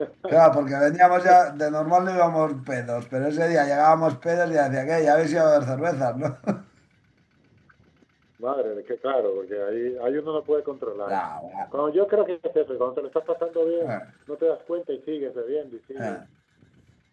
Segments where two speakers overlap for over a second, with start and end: none

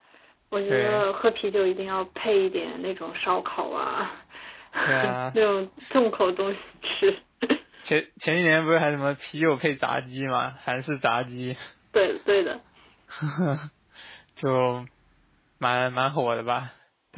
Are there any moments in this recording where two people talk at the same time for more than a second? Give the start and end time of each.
none

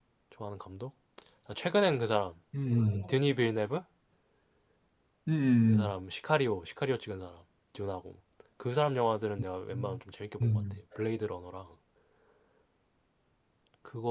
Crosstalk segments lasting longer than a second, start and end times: none

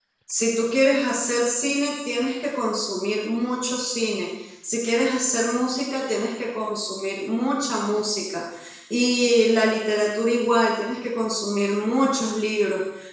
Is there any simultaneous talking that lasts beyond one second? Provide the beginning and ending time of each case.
none

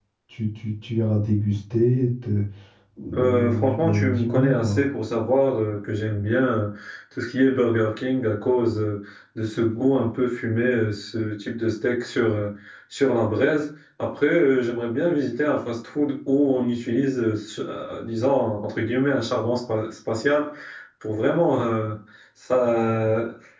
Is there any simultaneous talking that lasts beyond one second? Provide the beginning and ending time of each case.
3.2-4.8

